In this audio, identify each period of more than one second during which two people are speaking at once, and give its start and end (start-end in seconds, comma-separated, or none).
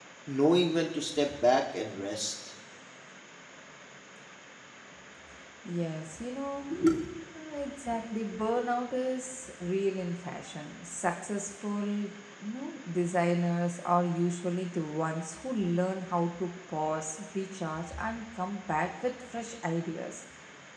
none